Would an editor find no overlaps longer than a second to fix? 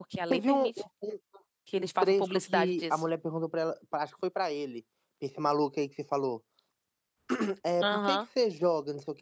No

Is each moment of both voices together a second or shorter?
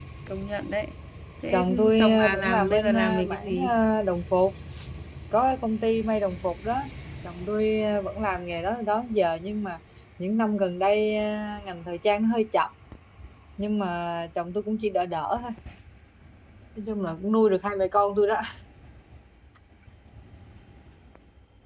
No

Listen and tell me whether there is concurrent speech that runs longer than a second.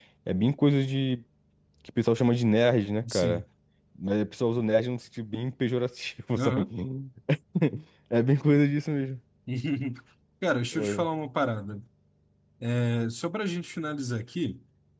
No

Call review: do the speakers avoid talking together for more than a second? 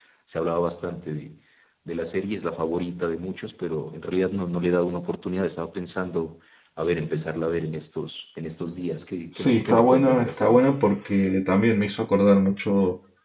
No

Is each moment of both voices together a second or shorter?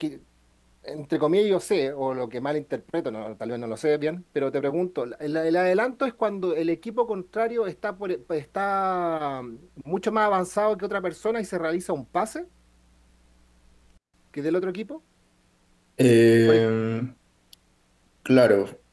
Yes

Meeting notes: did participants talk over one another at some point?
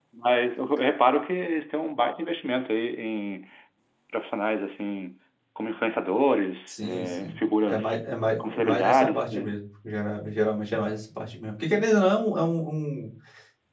Yes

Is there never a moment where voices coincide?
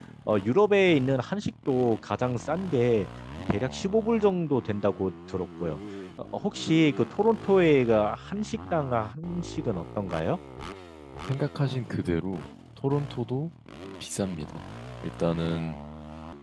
Yes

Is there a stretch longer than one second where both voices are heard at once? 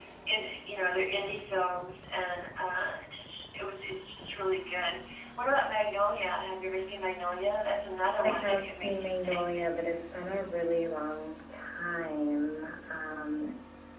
Yes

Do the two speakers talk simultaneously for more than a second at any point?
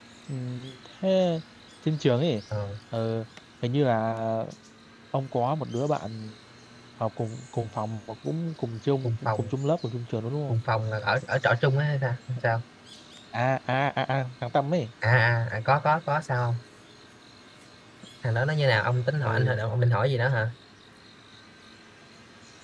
No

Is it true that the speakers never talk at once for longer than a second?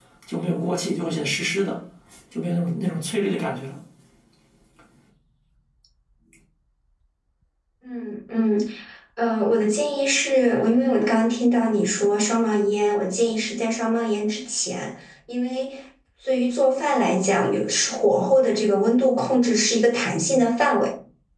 Yes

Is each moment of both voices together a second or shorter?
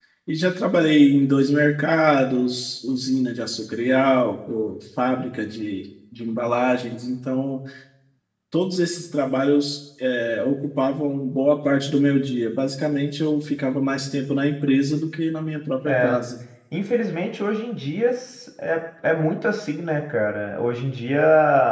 Yes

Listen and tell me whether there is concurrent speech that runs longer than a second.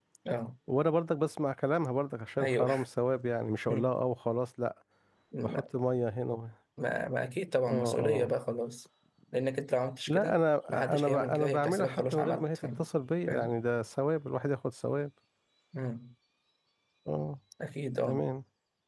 Yes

